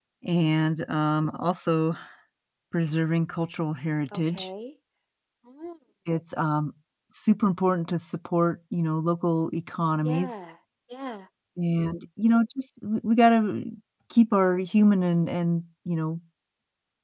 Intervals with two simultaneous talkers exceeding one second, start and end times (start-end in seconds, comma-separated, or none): none